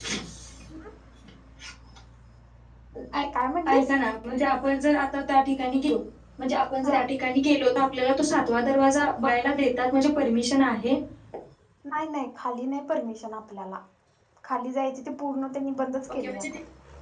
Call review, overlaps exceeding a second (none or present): none